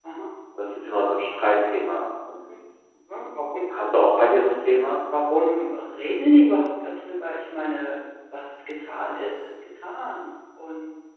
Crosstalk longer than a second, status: none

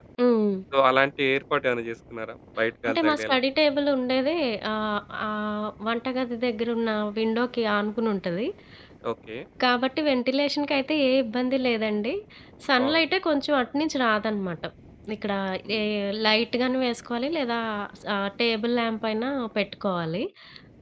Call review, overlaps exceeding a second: none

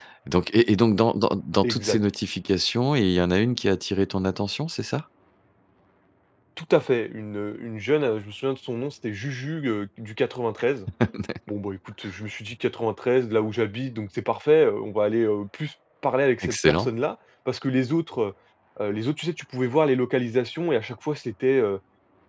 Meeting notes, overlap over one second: none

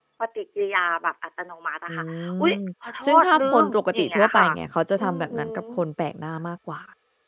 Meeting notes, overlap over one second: present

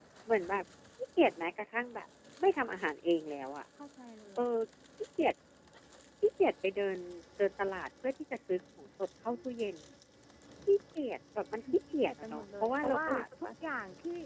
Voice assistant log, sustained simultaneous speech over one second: present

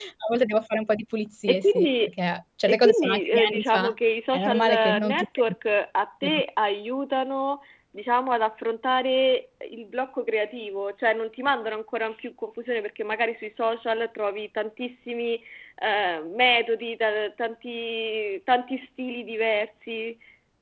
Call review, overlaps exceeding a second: present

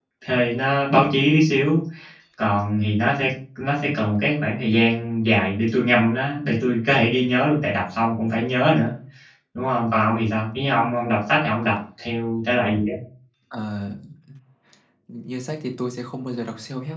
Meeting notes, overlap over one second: none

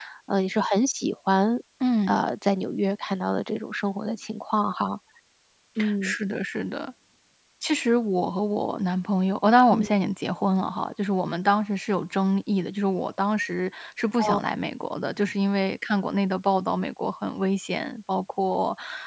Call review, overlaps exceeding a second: none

